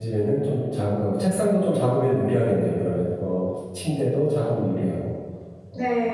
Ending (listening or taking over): taking over